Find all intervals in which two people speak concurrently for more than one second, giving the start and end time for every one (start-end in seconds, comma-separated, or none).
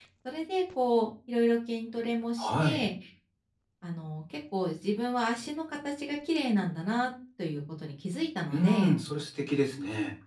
none